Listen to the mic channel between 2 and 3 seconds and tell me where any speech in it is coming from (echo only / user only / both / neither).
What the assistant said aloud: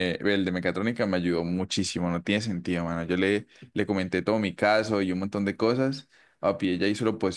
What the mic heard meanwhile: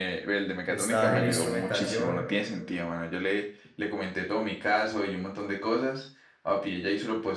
both